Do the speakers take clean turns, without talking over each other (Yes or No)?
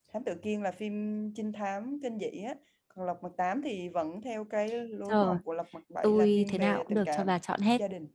No